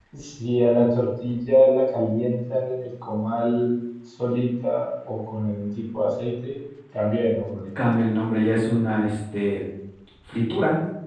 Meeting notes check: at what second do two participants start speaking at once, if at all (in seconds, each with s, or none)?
none